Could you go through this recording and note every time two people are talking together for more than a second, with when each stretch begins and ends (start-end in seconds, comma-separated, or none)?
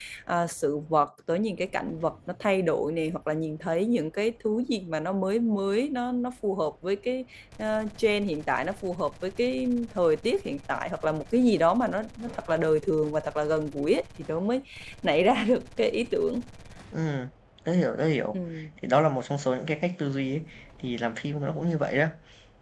none